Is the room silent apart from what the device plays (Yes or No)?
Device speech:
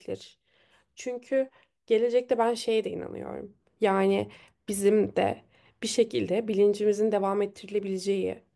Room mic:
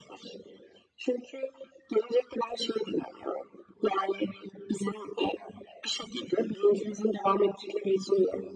Yes